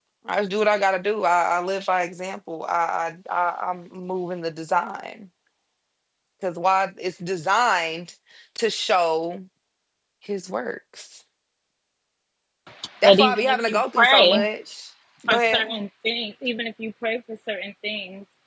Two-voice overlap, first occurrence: 13.0 s

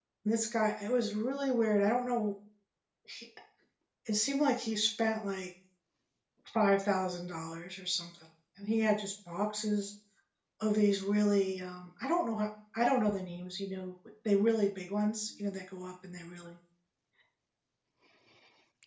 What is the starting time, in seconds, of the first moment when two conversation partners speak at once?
none

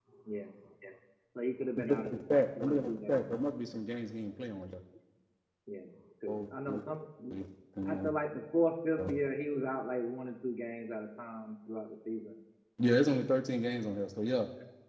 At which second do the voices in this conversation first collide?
1.8 s

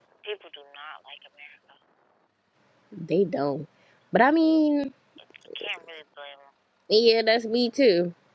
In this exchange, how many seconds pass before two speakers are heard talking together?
none

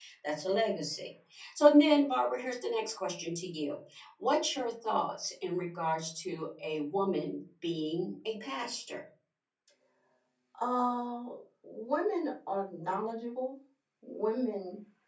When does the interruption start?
none

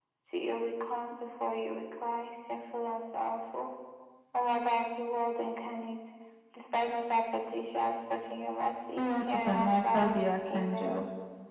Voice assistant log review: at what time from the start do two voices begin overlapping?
9.0 s

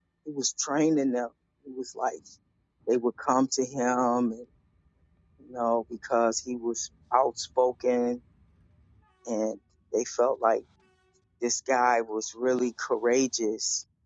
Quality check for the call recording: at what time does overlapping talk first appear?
none

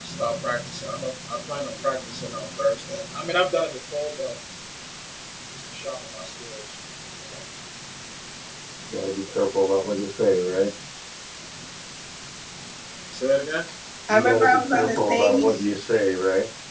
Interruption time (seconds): 14.1 s

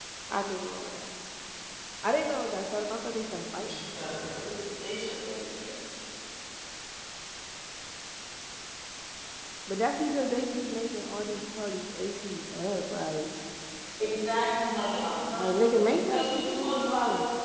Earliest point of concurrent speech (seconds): 15.2 s

